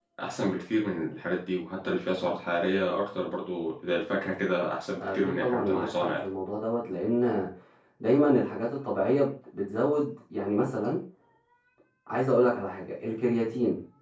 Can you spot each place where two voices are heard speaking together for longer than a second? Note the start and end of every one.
5.0-6.3

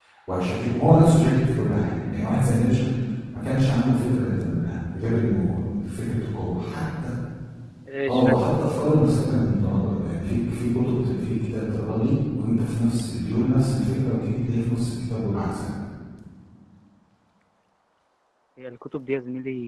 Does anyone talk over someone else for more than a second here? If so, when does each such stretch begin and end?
none

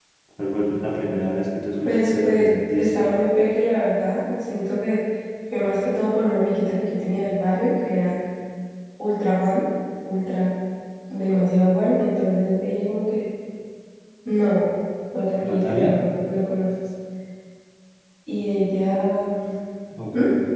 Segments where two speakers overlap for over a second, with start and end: 1.8-3.1

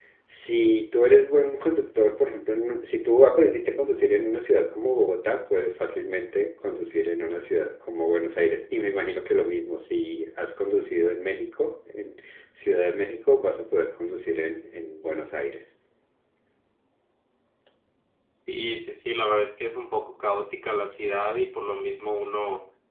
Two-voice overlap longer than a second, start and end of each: none

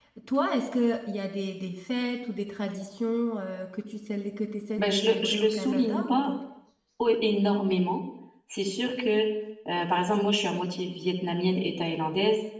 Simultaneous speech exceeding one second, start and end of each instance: 4.8-6.3

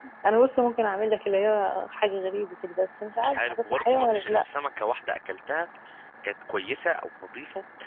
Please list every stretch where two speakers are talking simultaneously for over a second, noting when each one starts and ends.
3.2-4.4

